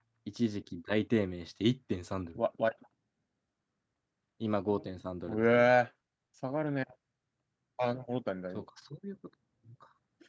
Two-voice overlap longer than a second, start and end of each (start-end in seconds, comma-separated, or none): none